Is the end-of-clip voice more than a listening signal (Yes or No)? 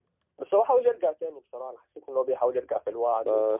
Yes